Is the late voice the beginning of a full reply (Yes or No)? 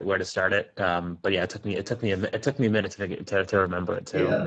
Yes